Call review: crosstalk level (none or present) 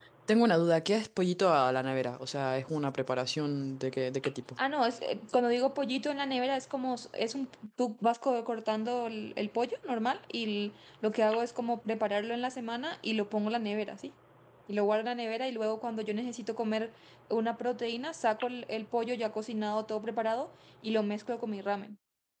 none